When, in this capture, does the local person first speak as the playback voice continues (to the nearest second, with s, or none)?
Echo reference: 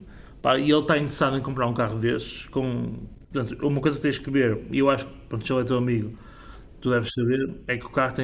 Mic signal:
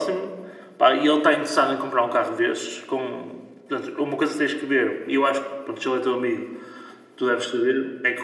none